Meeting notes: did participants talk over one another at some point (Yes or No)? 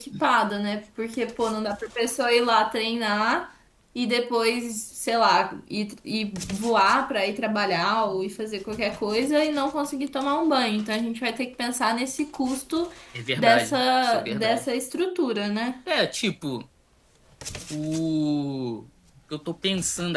Yes